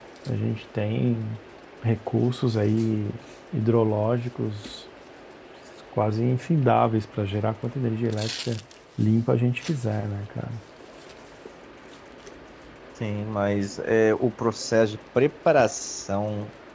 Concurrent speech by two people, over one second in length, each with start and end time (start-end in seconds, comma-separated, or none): none